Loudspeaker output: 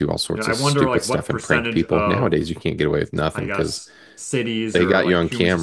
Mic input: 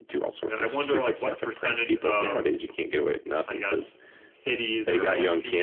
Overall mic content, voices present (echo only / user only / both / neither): echo only